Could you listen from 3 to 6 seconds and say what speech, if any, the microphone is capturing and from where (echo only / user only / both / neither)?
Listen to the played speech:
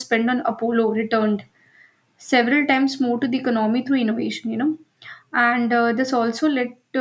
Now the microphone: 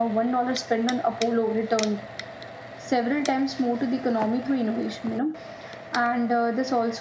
echo only